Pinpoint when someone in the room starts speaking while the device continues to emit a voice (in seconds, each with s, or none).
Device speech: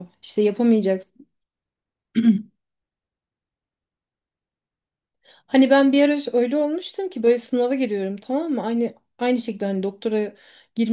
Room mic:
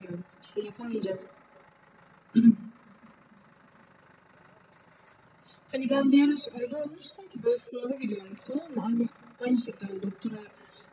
none